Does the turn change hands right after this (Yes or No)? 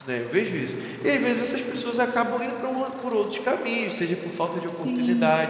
No